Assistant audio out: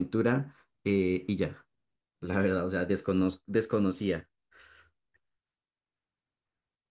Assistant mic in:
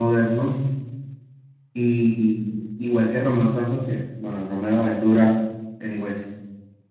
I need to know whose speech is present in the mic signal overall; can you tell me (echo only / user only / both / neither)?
user only